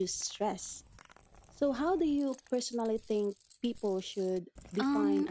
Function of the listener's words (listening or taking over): taking over